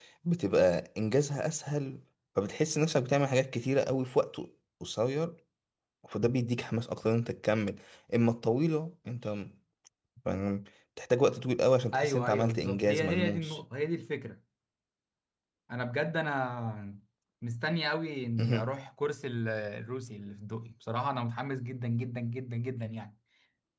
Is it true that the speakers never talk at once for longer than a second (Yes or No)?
No